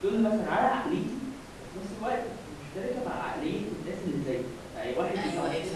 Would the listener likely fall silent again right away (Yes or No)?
No